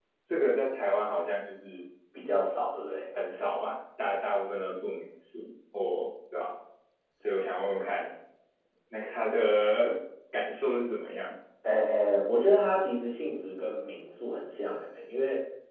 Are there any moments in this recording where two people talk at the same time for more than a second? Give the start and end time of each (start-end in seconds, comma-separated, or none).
none